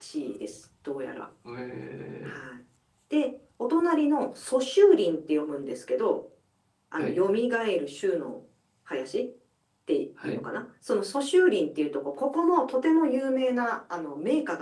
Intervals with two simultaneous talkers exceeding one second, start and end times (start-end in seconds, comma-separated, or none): none